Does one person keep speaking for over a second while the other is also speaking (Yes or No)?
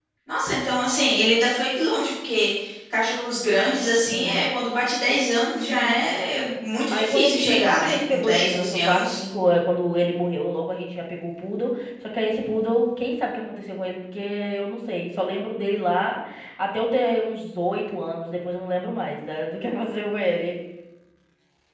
Yes